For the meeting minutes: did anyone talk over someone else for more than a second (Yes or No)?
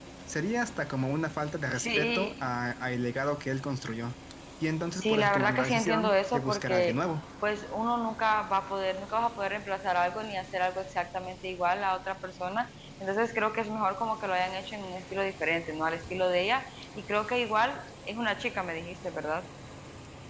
Yes